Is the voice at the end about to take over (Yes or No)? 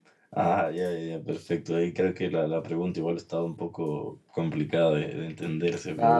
Yes